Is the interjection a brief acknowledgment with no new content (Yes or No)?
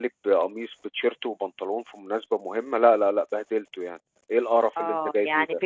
No